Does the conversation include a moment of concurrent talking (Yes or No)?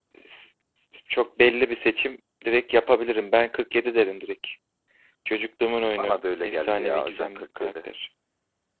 Yes